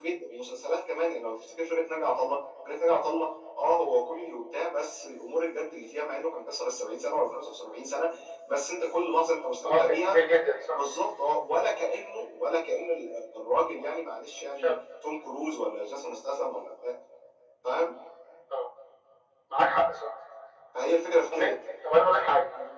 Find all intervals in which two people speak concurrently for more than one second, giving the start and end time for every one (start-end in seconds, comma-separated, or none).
none